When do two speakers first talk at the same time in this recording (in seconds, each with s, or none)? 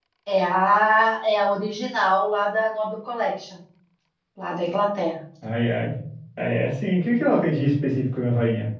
none